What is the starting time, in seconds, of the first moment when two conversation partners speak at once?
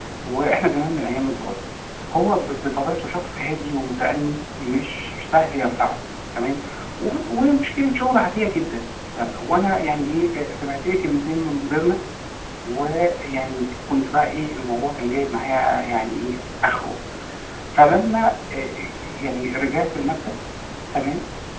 none

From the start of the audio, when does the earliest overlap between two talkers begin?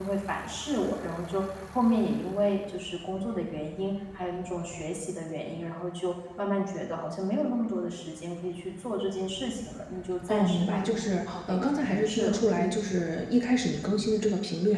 10.3 s

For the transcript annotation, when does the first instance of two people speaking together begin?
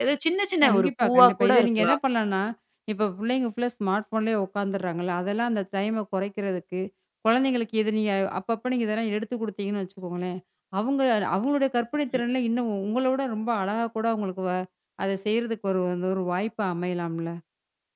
0.6 s

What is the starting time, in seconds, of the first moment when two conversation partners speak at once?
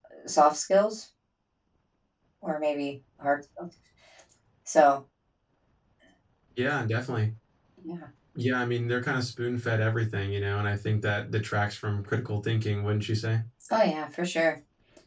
none

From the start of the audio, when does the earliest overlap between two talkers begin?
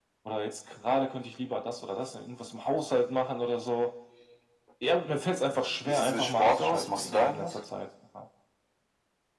5.8 s

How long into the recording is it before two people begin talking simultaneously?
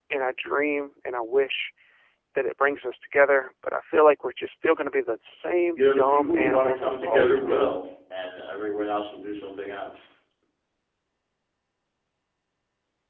5.7 s

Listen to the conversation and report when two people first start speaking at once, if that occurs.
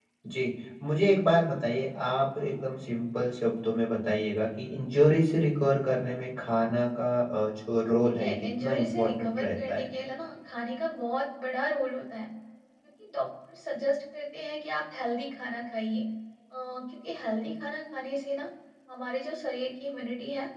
8.2 s

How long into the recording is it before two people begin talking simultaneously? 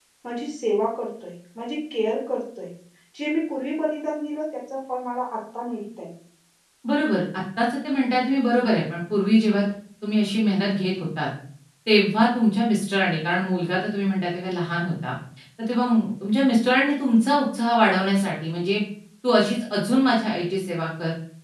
none

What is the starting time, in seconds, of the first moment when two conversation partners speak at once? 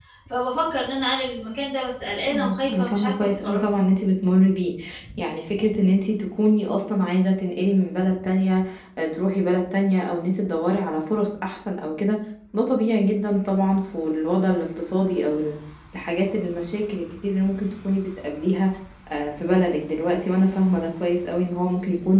2.3 s

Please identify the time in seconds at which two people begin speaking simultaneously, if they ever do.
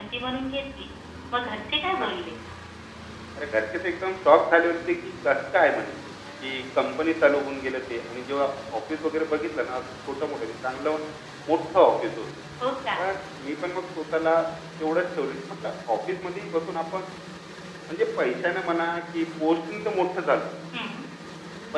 none

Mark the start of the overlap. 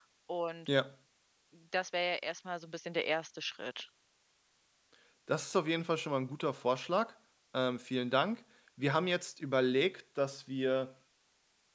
none

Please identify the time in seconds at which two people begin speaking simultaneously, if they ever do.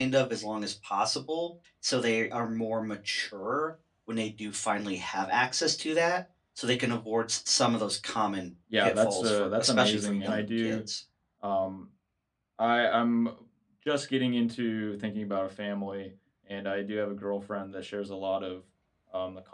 8.7 s

